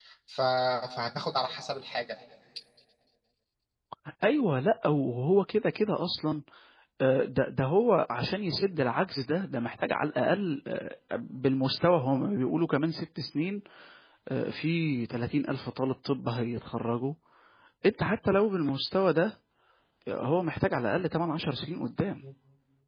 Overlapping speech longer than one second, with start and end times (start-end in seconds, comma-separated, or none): none